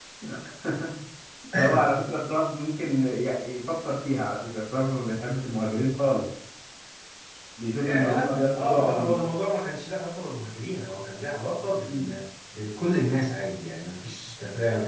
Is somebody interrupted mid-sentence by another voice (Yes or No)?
Yes